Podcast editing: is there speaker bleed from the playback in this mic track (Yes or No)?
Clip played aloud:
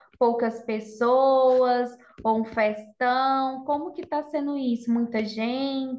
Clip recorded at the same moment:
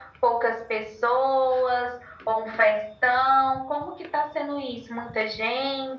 Yes